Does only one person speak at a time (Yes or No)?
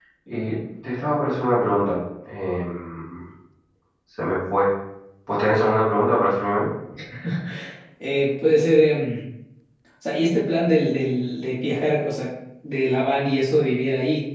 Yes